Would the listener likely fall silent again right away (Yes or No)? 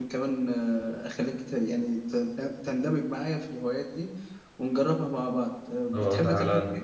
No